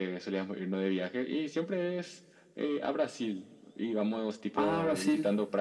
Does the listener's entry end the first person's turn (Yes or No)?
No